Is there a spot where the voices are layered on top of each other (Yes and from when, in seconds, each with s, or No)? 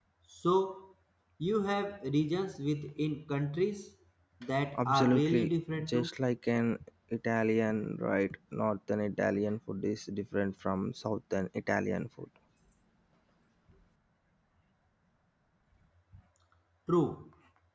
Yes, from 4.8 s